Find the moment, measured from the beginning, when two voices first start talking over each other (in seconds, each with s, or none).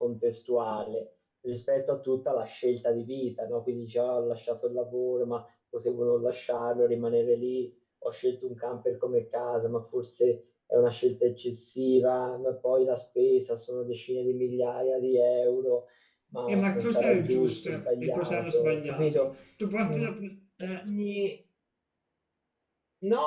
16.5 s